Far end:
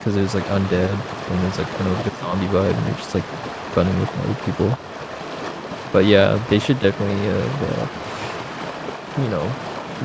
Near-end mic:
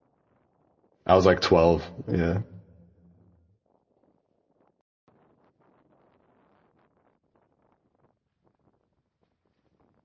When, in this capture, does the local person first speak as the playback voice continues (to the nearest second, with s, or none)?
1 s